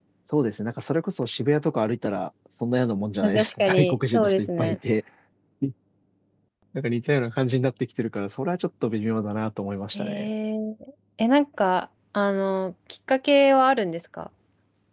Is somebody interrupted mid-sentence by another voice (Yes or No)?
Yes